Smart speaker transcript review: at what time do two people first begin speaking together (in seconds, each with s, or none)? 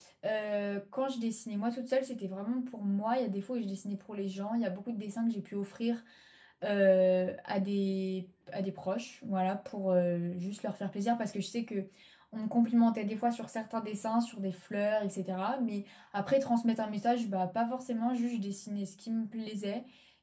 none